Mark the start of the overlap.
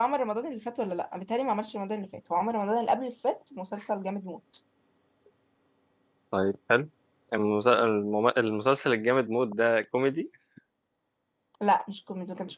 none

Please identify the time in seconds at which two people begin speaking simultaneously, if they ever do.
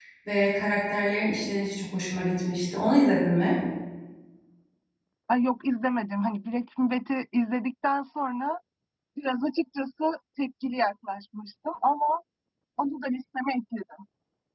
none

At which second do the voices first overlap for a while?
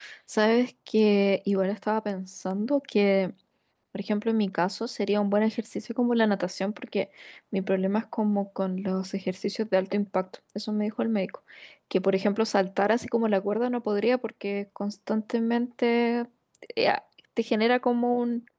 none

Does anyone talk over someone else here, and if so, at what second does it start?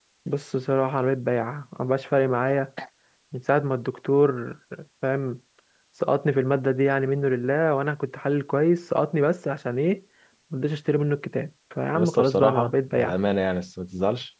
11.9 s

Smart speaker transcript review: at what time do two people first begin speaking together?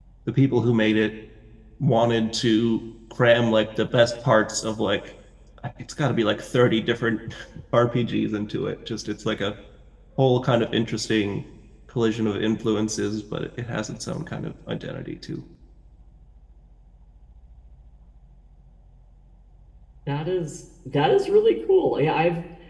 none

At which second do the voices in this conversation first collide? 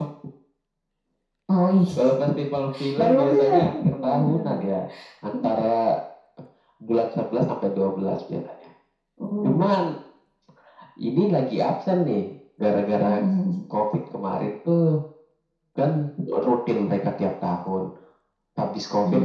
3.0 s

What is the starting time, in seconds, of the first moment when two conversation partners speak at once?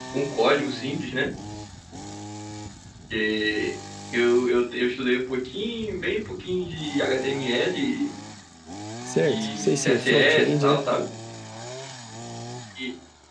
9.2 s

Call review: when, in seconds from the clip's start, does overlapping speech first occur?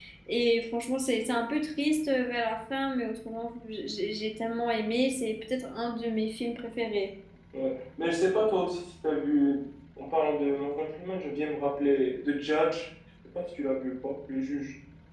none

